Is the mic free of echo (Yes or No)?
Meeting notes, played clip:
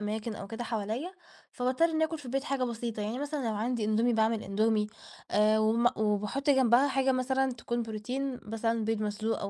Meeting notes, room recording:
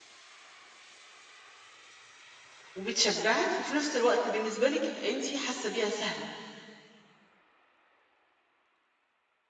Yes